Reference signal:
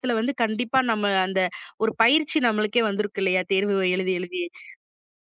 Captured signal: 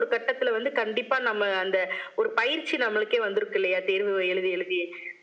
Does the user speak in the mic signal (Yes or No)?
No